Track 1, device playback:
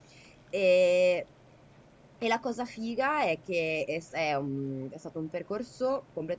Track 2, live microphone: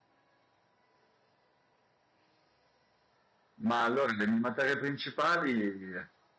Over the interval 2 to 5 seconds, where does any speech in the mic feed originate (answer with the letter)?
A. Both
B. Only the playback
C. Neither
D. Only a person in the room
D